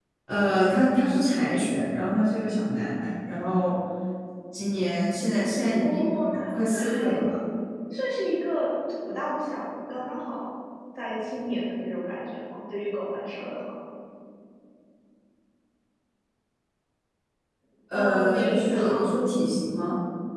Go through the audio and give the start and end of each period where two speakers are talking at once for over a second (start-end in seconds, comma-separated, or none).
5.8-7.2, 17.9-19.2